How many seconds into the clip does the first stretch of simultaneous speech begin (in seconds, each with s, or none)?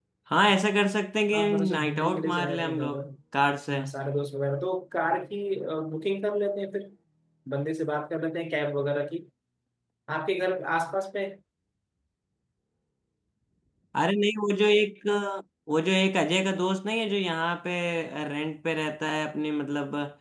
1.3 s